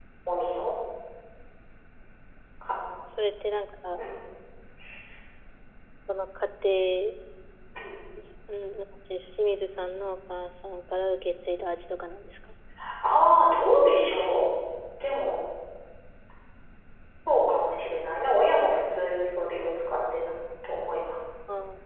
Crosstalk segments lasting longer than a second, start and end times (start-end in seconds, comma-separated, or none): none